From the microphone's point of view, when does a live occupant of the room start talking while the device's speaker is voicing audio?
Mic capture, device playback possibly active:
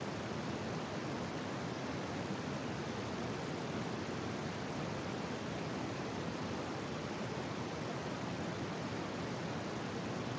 none

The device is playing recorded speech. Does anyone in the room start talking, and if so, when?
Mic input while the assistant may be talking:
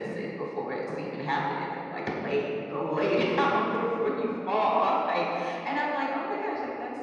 none

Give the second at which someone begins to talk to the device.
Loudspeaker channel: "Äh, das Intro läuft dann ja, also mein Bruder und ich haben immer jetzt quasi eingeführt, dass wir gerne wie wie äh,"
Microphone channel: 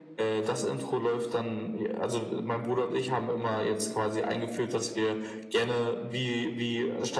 none

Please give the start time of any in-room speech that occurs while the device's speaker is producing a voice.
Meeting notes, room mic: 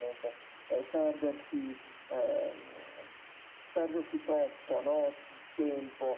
none

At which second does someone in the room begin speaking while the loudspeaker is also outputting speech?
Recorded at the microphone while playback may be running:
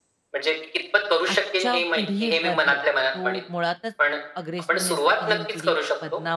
1.3 s

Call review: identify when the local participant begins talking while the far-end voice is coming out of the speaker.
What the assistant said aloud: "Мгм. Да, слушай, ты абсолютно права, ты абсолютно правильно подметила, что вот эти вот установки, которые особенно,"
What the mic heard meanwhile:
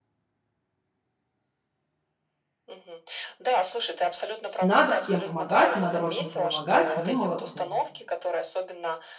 4.6 s

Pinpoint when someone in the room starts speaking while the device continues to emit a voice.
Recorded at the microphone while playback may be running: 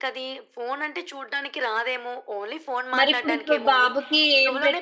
3.0 s

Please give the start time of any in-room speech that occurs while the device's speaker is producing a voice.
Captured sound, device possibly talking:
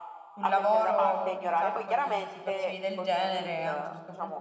0.3 s

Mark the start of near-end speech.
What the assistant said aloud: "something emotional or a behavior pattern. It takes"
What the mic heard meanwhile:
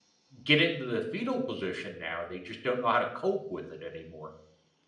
0.4 s

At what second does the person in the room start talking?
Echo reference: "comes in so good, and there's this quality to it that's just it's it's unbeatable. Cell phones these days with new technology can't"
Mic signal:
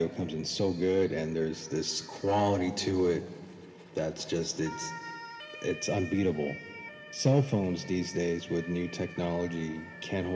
none

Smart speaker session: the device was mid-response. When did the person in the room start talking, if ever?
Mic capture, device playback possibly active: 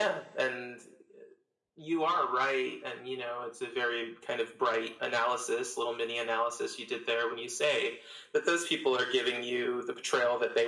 none

